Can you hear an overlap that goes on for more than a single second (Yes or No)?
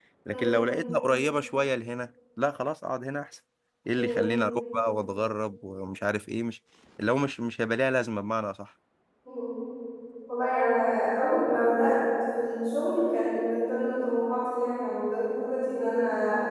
No